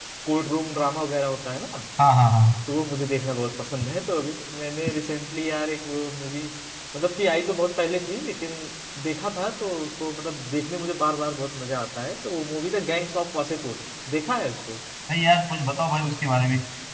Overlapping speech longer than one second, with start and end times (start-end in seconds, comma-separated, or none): none